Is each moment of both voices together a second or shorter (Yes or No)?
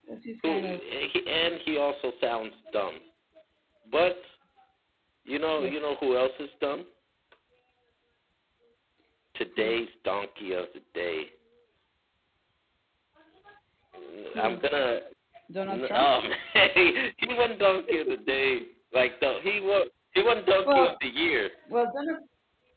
Yes